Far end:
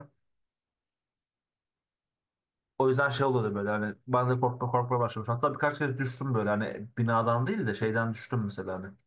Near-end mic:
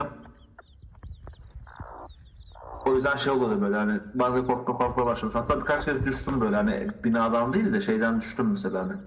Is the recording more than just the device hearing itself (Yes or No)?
No